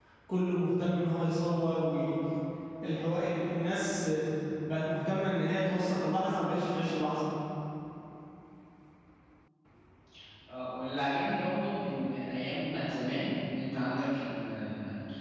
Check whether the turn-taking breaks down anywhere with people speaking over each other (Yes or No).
No